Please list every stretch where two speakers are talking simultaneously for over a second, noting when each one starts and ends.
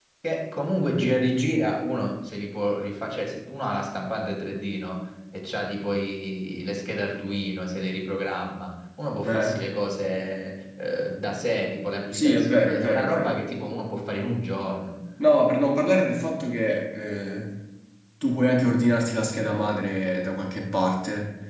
12.1-13.4

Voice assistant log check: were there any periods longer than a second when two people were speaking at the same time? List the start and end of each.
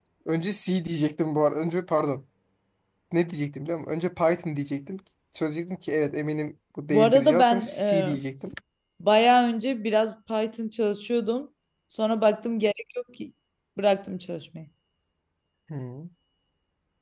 6.9-8.2

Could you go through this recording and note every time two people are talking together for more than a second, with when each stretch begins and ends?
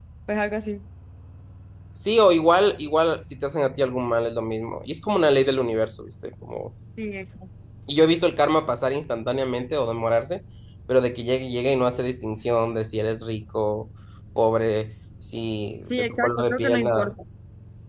15.8-17.1

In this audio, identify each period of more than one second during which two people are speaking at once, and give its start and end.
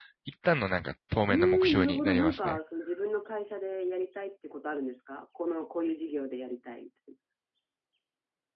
1.3-2.6

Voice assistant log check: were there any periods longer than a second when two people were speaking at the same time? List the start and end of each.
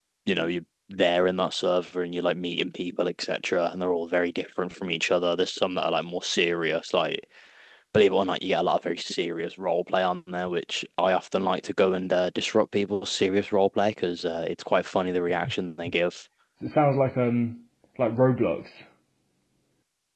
none

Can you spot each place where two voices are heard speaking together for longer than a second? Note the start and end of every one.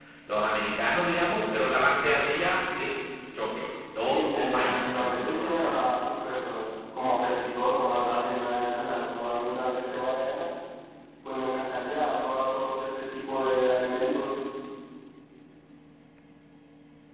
4.1-5.9

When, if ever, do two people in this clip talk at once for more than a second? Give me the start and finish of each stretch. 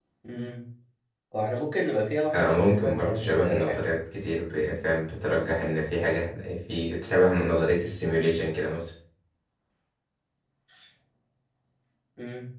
2.3-3.8

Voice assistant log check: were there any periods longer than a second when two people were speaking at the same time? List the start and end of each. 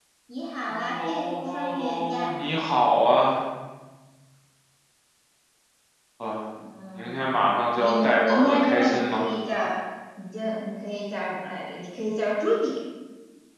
0.7-2.3, 7.0-9.3

